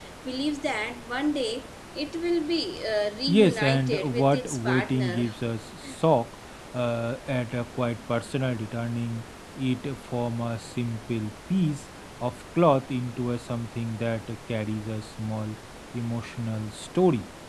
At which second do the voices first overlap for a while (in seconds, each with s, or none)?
3.3 s